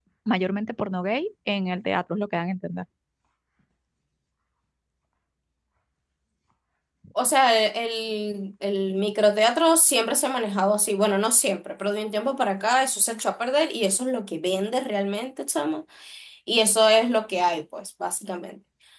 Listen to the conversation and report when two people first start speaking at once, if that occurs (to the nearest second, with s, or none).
none